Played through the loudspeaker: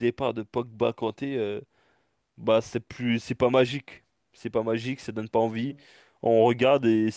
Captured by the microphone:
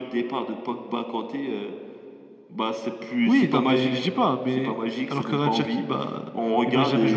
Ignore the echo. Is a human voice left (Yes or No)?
Yes